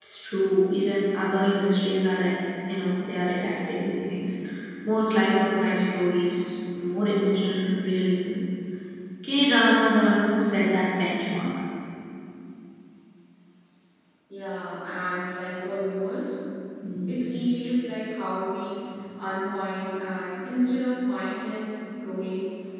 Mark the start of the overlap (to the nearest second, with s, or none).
none